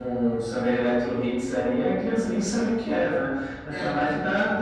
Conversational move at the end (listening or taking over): listening